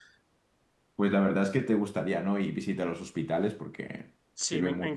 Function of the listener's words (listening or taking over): taking over